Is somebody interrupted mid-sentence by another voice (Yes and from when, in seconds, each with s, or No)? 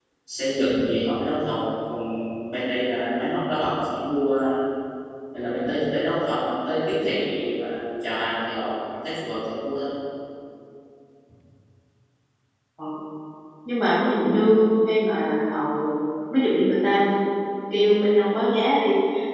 No